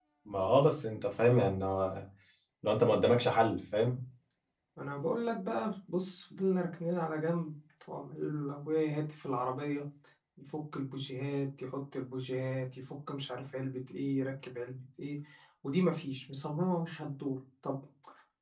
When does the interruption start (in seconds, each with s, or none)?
none